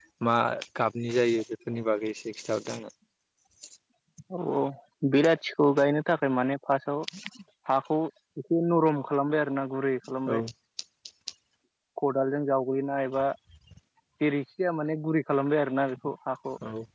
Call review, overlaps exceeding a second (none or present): none